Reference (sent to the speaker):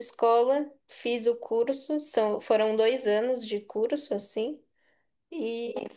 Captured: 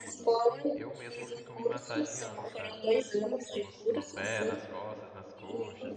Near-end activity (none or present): present